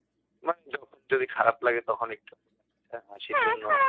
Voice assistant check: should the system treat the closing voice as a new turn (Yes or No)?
Yes